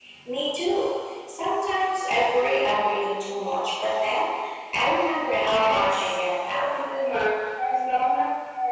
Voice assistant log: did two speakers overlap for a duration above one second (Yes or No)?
No